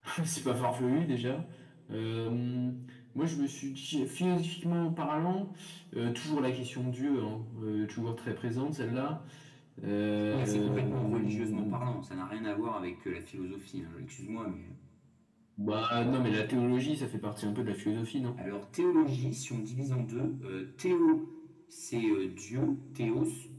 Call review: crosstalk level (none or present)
present